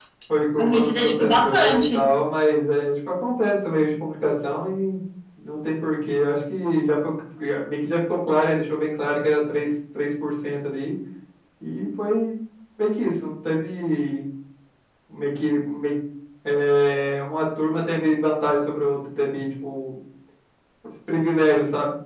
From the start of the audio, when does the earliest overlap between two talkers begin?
0.6 s

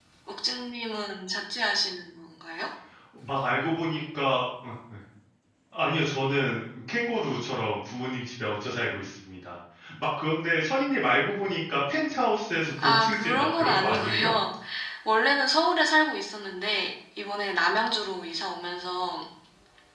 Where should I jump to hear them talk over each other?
12.8 s

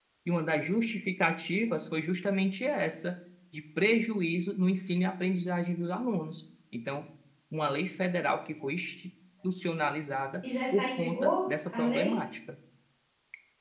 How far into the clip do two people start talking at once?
10.7 s

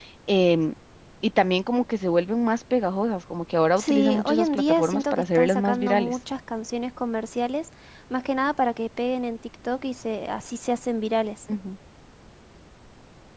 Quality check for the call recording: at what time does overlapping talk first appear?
3.8 s

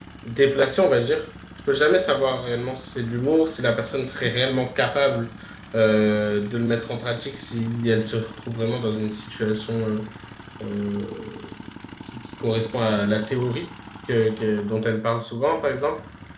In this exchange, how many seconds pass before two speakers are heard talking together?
none

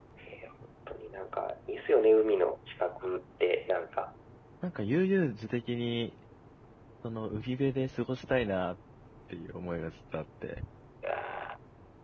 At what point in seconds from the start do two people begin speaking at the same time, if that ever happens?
none

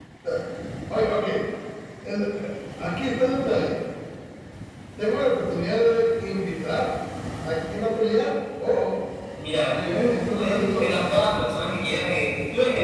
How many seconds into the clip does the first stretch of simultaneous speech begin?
9.7 s

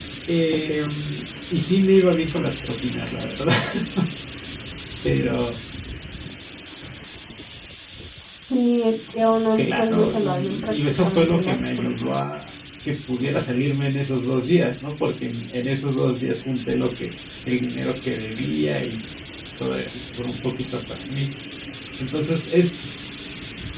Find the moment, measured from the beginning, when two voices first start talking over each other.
9.6 s

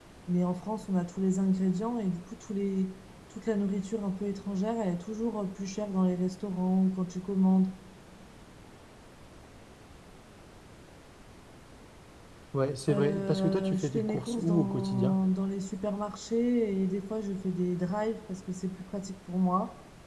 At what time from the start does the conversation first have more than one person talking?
12.9 s

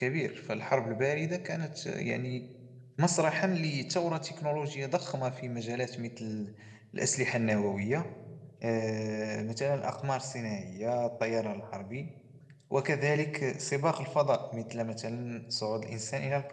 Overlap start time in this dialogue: none

